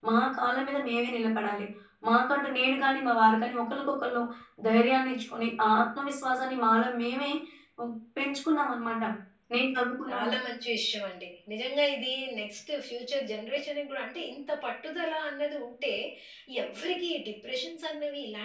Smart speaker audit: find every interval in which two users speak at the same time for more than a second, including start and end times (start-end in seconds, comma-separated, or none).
none